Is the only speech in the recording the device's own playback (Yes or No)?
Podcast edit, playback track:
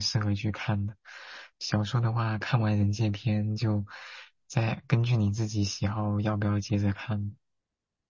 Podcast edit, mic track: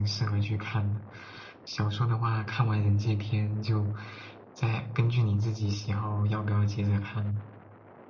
Yes